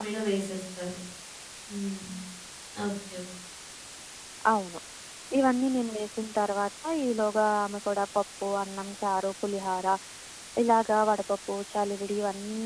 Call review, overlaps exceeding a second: none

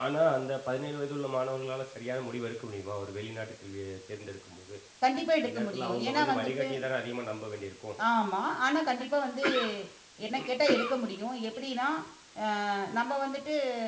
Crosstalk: present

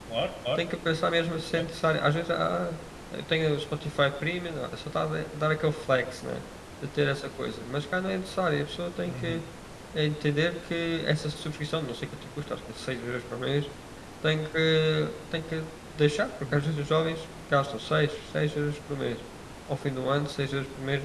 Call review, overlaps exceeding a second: none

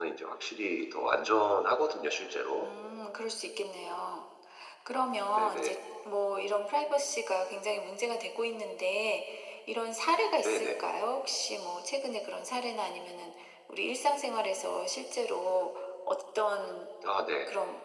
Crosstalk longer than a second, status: none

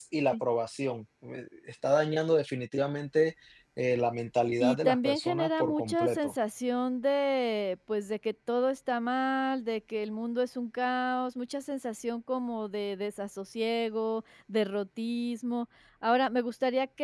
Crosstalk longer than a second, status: present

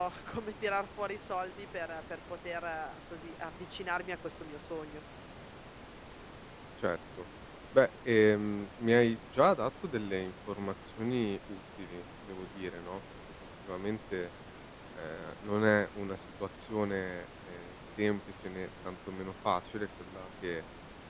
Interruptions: none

